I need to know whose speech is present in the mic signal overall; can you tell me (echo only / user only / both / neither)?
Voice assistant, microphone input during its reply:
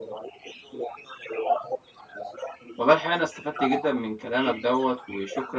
both